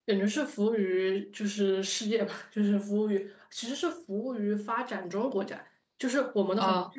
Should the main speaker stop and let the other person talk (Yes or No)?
No